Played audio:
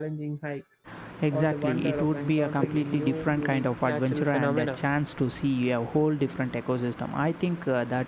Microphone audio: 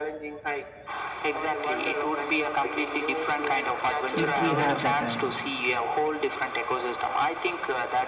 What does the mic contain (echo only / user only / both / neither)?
both